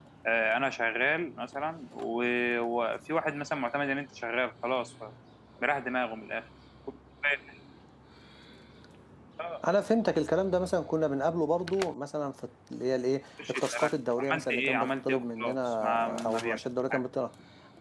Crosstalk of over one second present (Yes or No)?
Yes